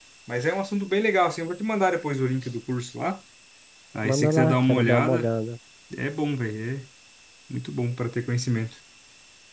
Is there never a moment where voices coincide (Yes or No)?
No